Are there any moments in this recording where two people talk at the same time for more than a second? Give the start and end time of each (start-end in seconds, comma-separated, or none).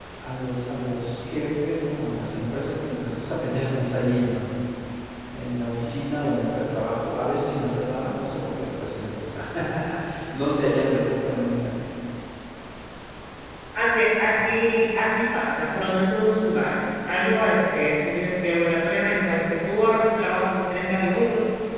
none